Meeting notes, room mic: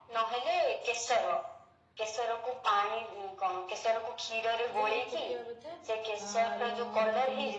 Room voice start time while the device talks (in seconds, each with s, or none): 4.8 s